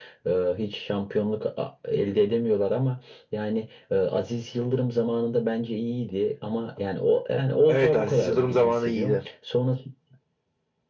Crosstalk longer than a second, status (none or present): present